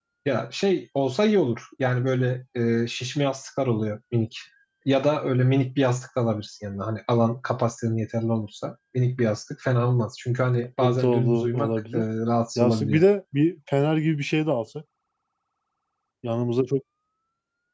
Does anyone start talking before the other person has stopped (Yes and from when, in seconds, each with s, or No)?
Yes, from 10.8 s